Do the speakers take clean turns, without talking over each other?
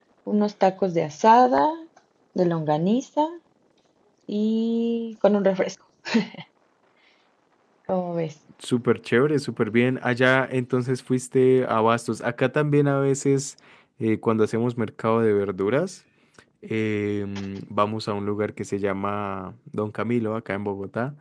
Yes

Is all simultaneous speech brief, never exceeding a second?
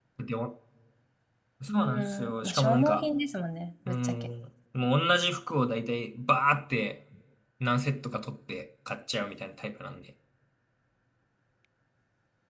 No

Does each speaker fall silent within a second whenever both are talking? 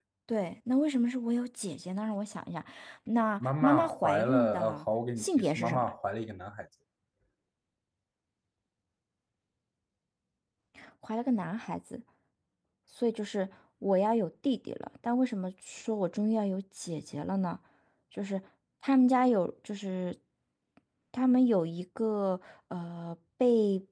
No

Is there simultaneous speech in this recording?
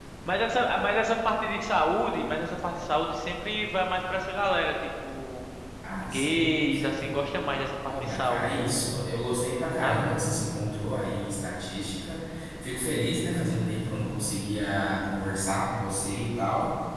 Yes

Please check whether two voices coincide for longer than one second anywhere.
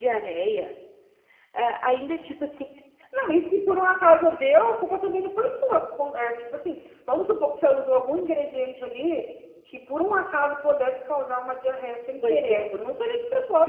No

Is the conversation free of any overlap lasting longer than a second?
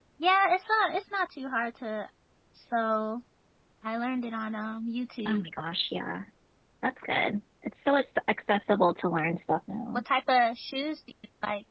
Yes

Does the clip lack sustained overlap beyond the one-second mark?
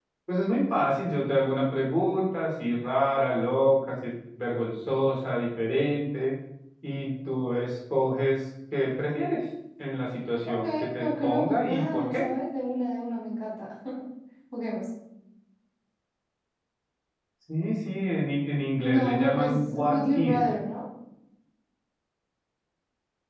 No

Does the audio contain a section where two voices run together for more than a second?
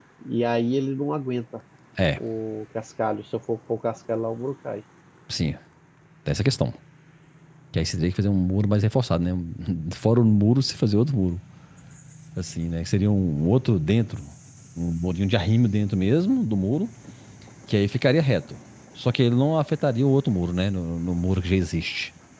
No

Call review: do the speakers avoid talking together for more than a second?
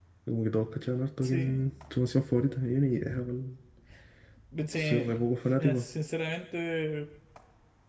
Yes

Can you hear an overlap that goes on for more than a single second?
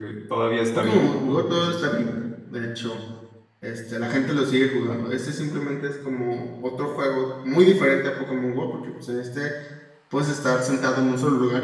Yes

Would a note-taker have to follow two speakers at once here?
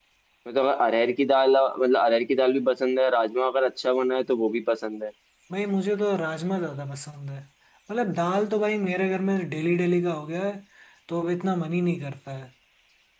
No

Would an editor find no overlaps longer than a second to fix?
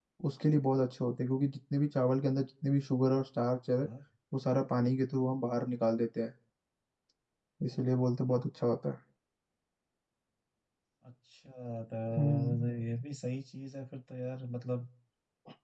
Yes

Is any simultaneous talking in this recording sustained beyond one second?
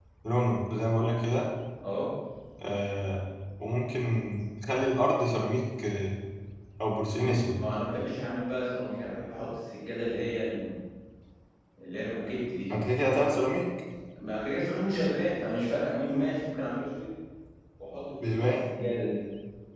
No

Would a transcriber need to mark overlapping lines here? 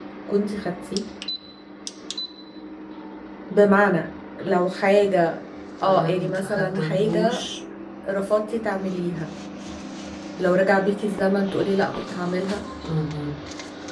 Yes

